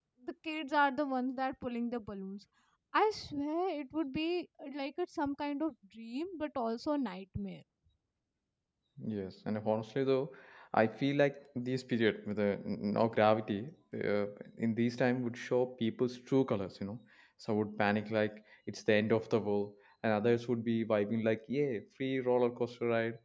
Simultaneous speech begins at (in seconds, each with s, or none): none